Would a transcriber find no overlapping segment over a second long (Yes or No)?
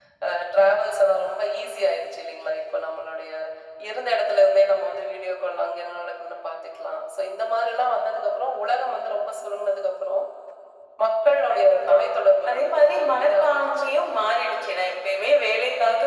No